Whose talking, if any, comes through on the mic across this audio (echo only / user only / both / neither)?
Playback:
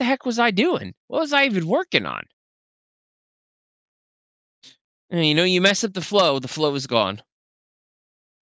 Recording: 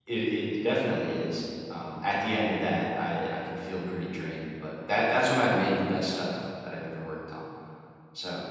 user only